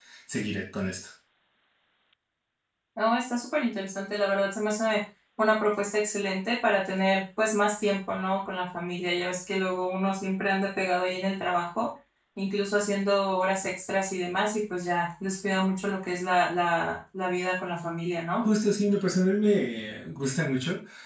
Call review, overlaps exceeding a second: none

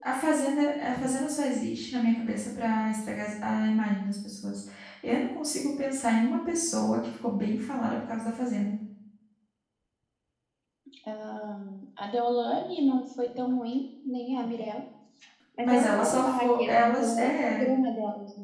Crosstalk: present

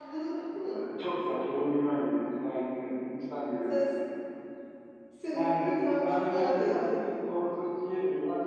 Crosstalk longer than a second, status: present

